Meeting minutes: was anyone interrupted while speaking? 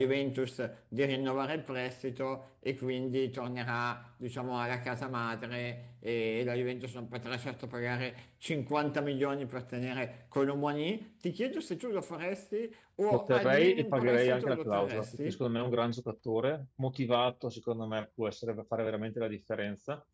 Yes, from 13.1 s

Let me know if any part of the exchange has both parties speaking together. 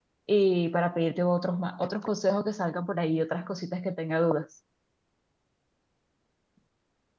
No

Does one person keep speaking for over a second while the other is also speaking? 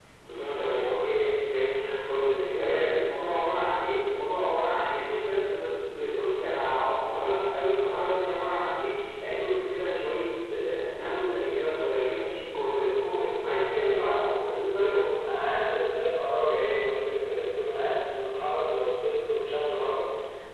No

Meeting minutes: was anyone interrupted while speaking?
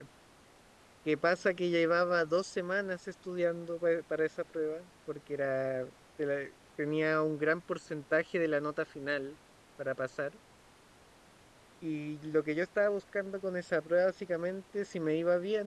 No

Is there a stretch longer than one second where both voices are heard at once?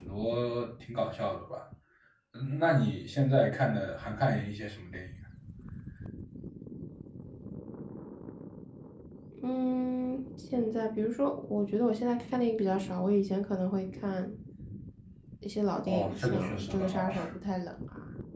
Yes, from 15.9 s

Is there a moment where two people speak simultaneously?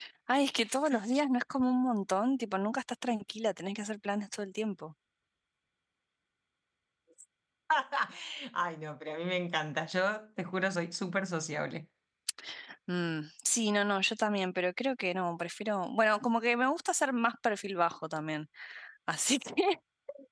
No

